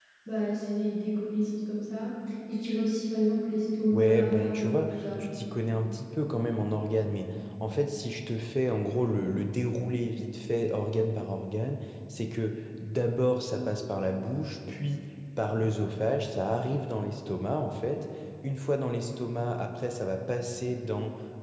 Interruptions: present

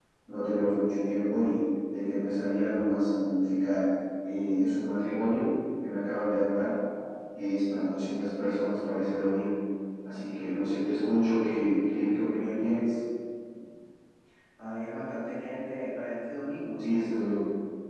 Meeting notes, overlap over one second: present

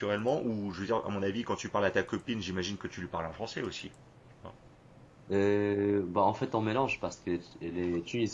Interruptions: none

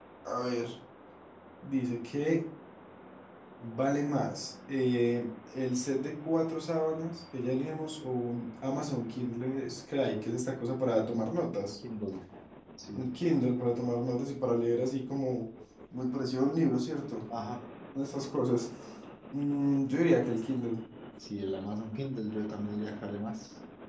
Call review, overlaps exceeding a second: none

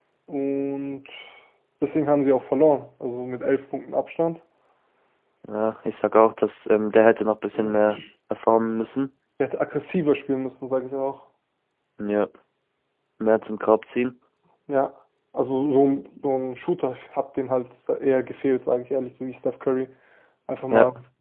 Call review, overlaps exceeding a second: none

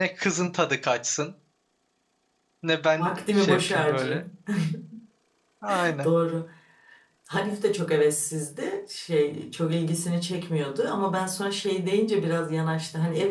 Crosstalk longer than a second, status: present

